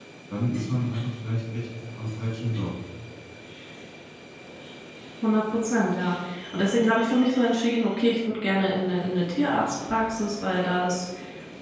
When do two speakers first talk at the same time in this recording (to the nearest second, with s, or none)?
none